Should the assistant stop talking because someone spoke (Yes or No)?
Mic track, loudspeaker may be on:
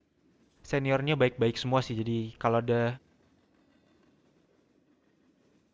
Yes